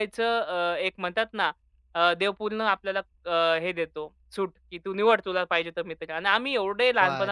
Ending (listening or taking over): taking over